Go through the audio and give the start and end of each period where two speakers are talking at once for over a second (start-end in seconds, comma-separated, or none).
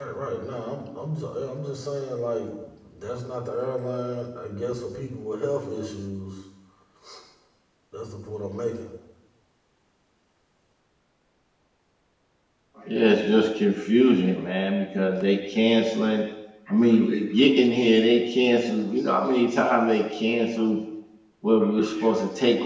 none